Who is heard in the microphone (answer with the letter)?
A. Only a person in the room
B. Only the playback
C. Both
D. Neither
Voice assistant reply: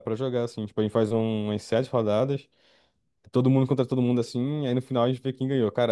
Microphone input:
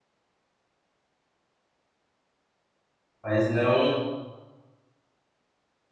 A